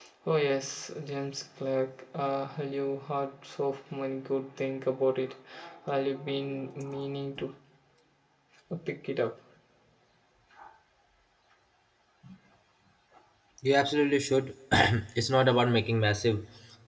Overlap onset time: none

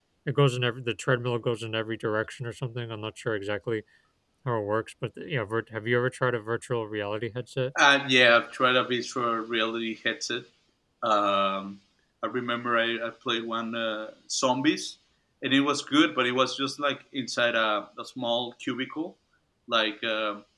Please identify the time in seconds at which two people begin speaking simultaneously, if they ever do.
none

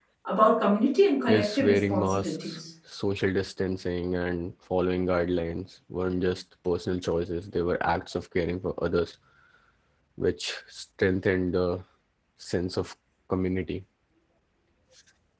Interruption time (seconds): 1 s

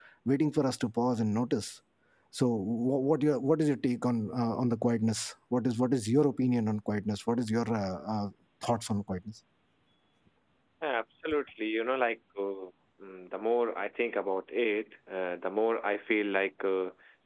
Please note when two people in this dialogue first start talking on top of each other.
none

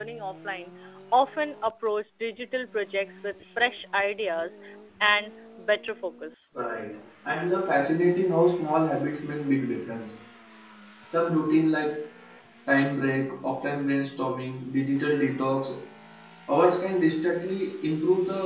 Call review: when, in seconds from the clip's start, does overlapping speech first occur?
none

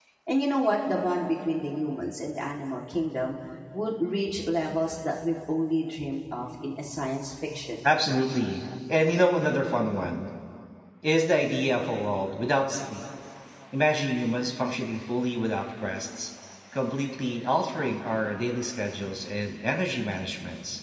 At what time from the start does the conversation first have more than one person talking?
none

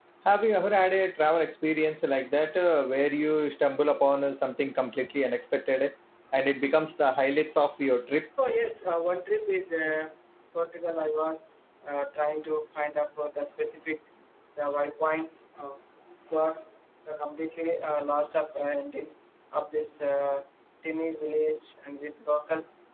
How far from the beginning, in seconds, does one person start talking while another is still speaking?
none

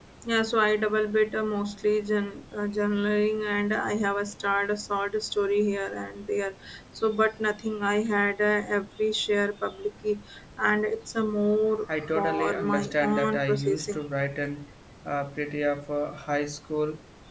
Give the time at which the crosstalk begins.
12 s

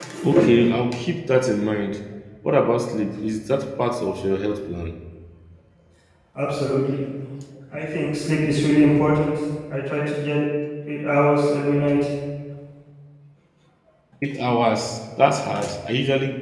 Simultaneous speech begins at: none

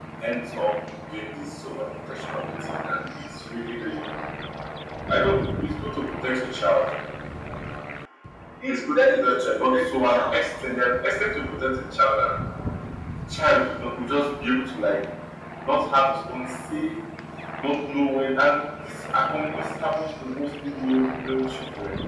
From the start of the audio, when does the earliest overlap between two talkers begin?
9 s

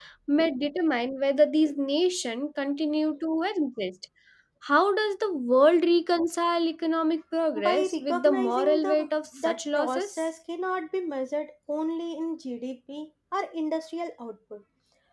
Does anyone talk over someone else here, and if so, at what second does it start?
8 s

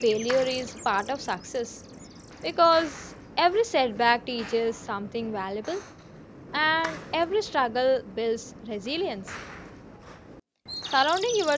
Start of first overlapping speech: none

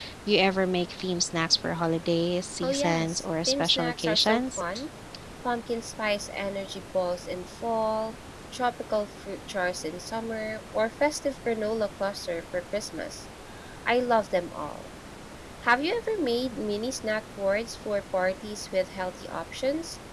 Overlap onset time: 3 s

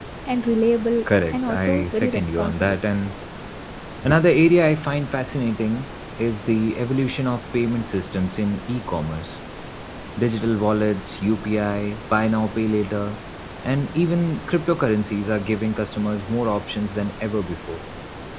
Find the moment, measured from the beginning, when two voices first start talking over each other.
1 s

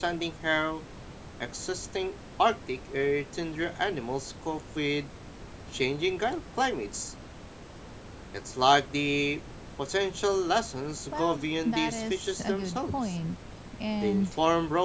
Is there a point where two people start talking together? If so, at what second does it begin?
11 s

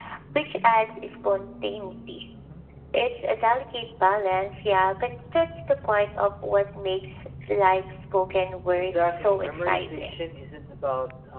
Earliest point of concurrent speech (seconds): 9 s

